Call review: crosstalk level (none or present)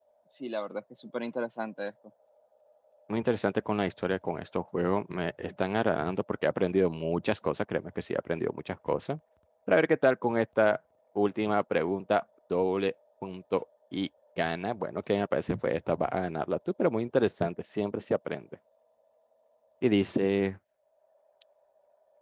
none